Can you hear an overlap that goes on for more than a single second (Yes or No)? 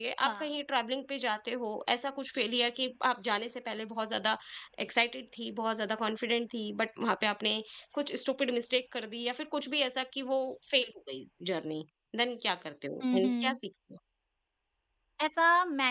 No